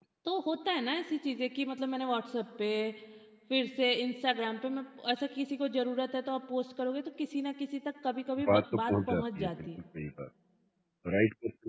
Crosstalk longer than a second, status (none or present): present